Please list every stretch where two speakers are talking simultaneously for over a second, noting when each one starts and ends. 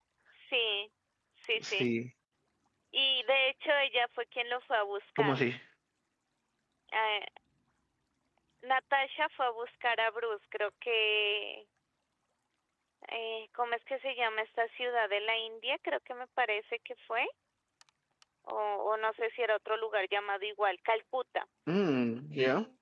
none

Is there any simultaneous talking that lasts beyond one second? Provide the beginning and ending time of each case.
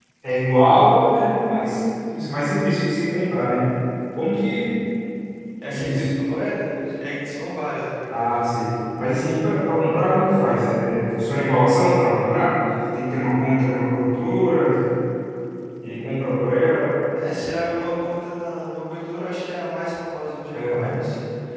none

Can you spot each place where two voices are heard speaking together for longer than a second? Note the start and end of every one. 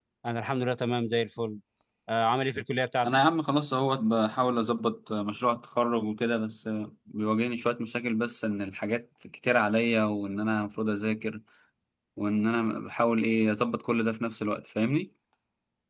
none

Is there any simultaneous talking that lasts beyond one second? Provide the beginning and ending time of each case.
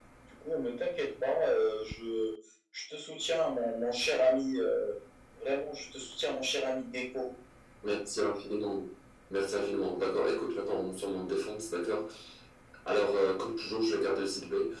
none

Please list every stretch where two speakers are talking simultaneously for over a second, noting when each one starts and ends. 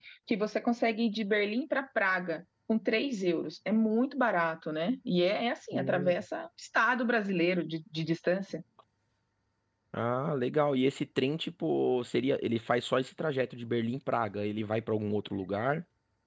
none

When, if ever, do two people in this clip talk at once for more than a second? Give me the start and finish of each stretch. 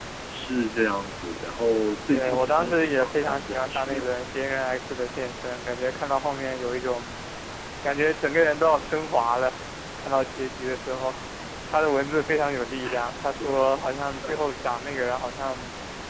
2.1-4.0

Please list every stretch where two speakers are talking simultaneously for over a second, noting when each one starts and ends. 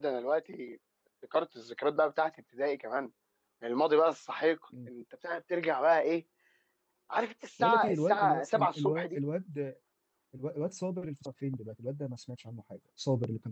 7.6-9.2

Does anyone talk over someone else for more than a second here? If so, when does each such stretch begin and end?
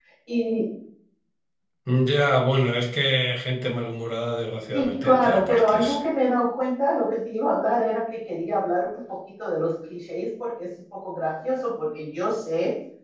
4.7-6.0

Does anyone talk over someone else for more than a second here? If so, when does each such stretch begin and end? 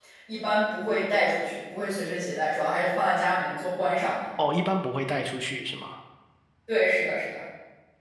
none

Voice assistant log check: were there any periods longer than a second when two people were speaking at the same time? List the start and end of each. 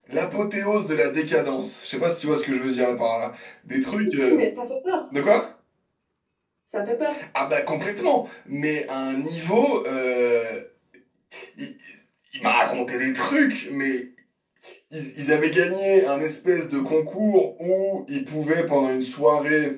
none

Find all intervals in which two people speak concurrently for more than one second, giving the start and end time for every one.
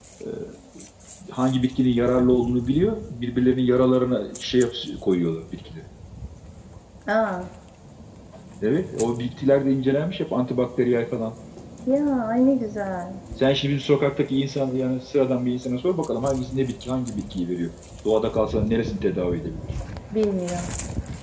none

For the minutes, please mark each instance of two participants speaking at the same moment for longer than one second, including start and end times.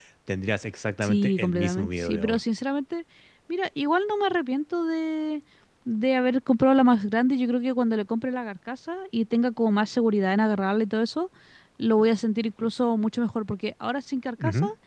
1.0-2.4

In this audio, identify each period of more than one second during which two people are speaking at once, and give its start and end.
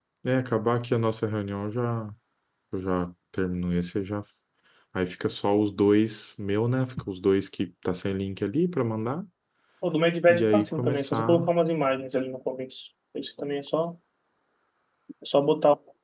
10.3-11.5

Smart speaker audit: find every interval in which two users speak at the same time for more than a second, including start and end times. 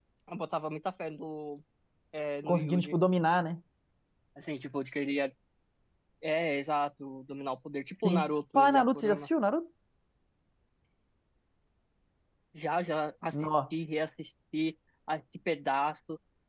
8.1-9.3

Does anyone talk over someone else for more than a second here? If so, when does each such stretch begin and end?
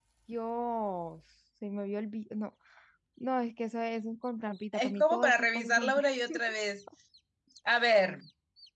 4.8-6.4

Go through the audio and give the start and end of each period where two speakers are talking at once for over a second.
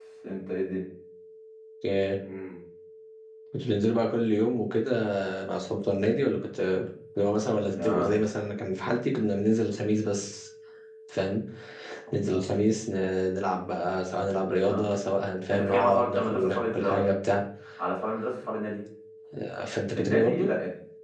15.5-17.1

